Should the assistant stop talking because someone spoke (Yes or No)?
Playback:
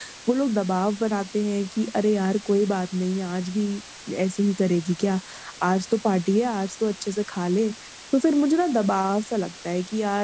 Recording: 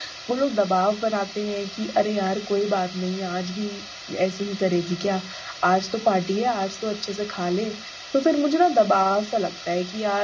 No